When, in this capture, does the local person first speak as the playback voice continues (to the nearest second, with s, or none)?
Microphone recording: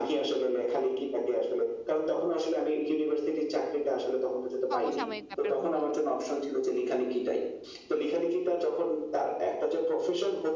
5 s